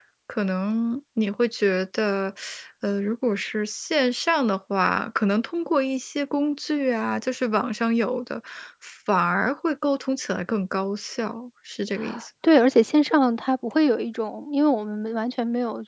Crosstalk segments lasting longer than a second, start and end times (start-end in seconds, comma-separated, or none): none